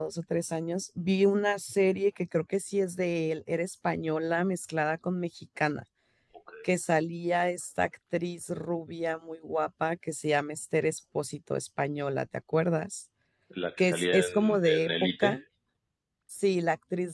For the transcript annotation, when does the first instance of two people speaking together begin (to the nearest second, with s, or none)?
14 s